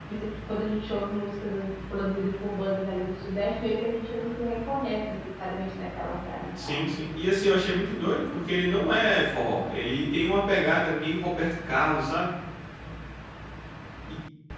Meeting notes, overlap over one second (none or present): none